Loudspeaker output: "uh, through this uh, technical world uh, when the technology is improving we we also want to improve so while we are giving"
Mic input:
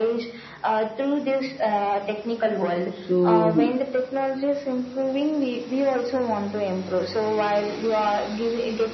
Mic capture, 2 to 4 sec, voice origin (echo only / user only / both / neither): both